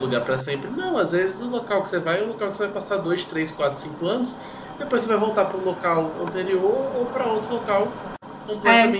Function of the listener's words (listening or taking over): listening